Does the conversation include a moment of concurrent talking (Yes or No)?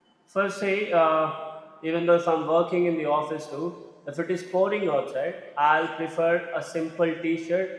No